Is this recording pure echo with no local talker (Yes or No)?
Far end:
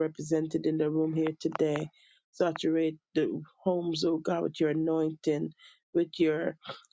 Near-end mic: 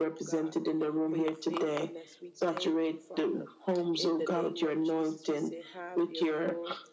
No